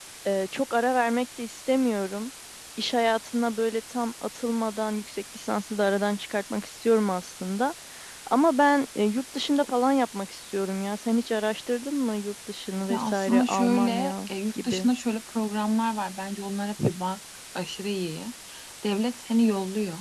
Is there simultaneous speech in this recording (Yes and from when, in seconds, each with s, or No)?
Yes, from 12.9 s